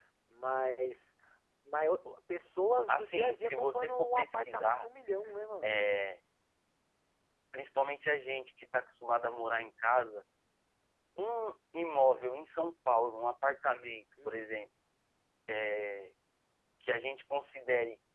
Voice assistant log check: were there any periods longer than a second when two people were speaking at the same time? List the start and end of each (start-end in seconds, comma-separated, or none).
2.9-4.8